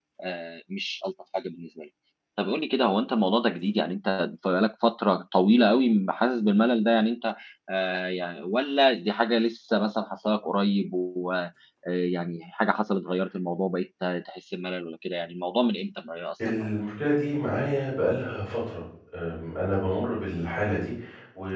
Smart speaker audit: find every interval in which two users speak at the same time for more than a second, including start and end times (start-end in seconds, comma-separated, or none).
none